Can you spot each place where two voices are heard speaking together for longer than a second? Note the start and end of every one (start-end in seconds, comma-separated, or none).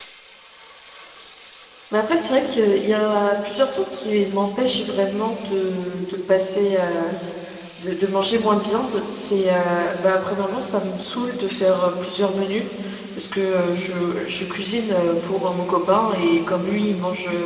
none